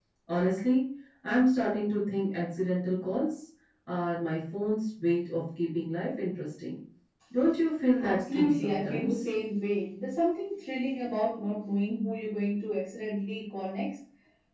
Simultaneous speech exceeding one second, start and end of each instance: 8.0-9.2

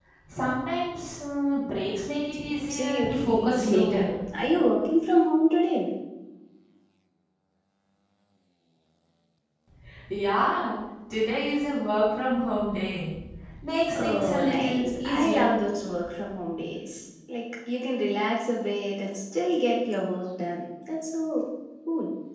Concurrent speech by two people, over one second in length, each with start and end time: 2.5-4.2, 13.9-15.5

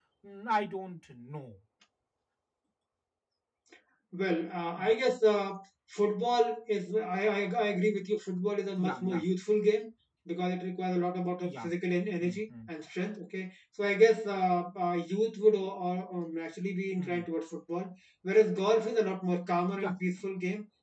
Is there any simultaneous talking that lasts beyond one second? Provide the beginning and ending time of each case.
none

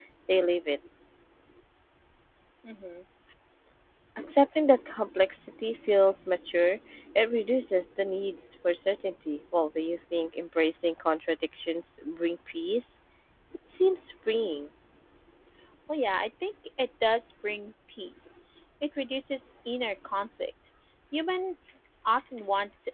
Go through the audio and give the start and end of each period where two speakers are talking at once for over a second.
none

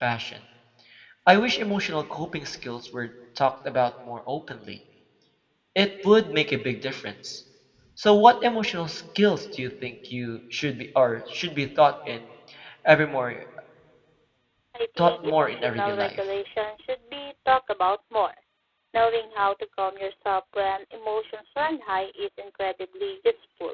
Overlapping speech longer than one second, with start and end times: 15.0-16.2

